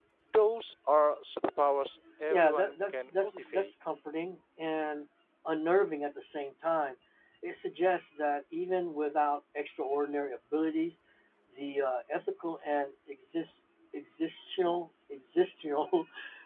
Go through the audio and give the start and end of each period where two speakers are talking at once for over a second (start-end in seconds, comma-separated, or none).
2.3-3.7